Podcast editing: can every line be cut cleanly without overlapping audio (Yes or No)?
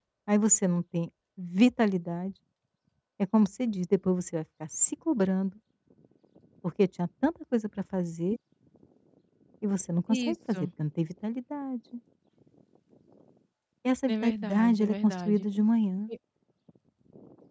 No